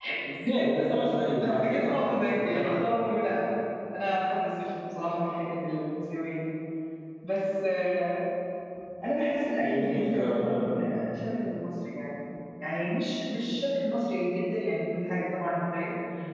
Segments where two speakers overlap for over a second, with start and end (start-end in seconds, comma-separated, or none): 1.4-2.9, 9.6-11.0